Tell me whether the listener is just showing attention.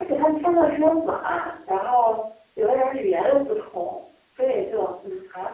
Yes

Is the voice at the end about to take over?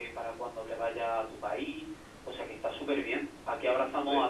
No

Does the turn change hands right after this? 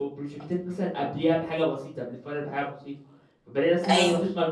No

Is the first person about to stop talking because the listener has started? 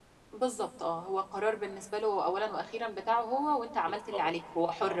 Yes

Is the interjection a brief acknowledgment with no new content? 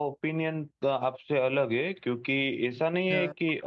Yes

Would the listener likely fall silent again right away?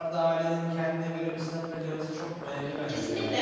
No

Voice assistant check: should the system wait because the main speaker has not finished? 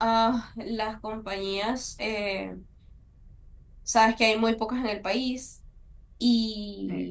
Yes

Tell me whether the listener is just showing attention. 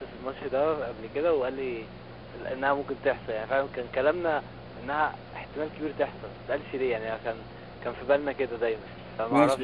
No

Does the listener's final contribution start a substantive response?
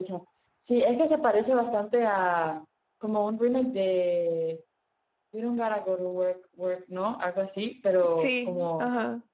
No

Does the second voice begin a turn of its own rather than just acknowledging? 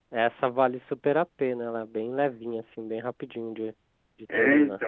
Yes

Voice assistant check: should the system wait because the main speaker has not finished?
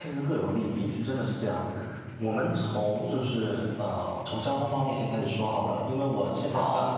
Yes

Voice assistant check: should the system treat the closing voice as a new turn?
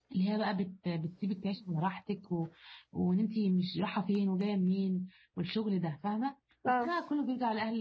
No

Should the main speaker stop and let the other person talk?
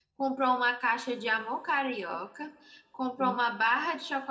No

